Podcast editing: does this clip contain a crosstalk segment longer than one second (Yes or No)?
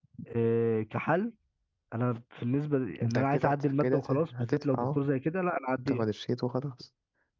Yes